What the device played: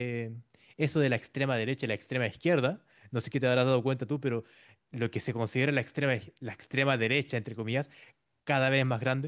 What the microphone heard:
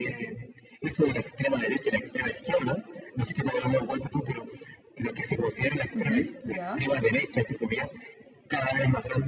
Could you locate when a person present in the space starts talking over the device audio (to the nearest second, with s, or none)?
6 s